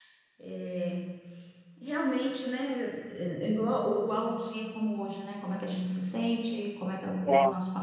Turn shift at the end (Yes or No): No